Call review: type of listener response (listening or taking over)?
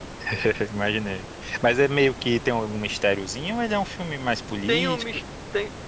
taking over